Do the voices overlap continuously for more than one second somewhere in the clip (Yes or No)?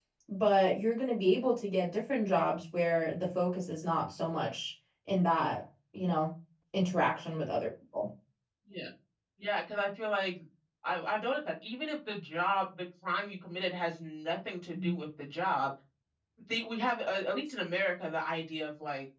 No